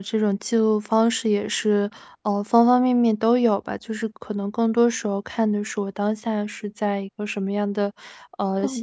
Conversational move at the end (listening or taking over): listening